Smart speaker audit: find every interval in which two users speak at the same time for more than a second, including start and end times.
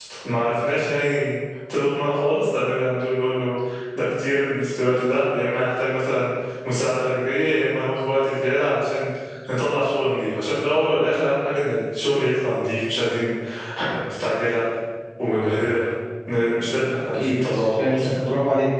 16.8-18.1

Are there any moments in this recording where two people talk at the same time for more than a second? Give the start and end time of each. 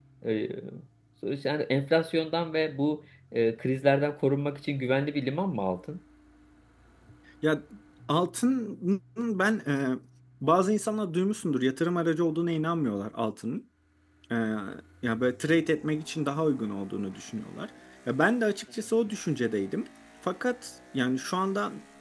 none

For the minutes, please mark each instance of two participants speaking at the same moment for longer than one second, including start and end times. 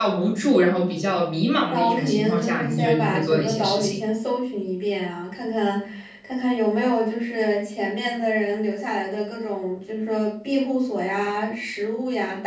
1.7-4.0

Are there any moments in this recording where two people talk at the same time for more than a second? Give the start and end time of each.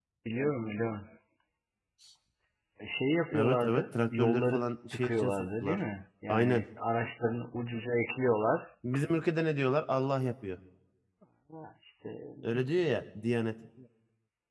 3.3-5.8

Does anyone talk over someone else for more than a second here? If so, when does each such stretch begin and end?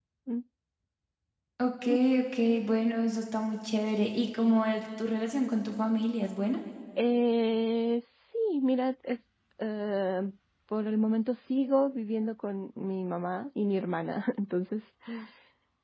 none

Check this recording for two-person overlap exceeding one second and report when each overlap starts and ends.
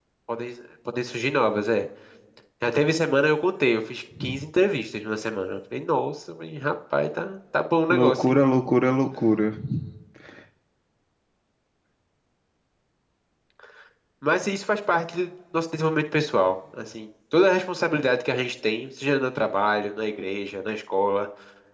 none

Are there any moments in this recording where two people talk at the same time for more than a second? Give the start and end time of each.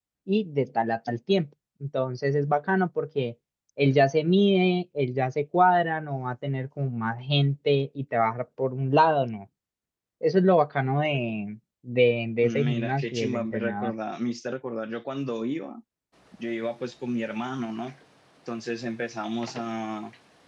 12.4-13.9

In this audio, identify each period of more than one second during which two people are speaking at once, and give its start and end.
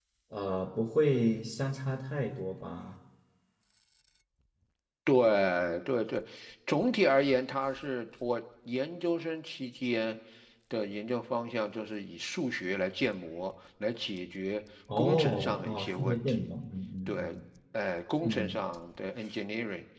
15.0-16.5

